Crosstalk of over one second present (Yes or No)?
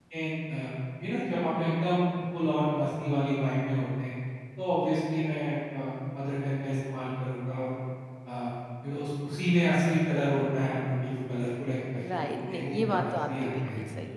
Yes